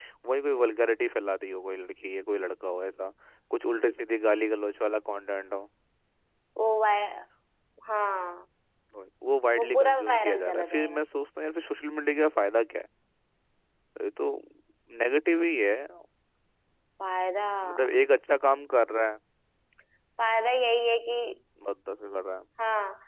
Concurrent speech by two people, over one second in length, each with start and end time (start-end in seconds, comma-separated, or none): 9.6-11.0